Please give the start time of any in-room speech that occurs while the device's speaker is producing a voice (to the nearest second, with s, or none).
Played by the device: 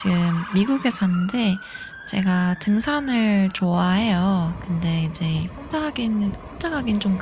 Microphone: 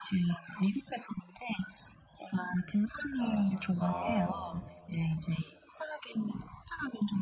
3 s